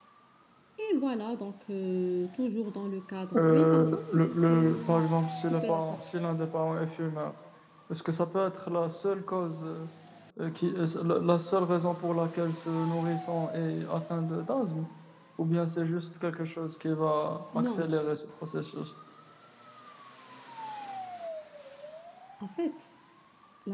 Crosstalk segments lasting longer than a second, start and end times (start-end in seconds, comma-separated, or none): 3.4-5.0